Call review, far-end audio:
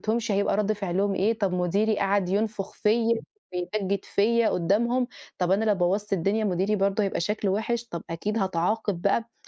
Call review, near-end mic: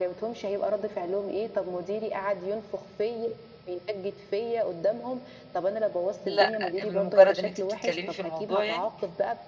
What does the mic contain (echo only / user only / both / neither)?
both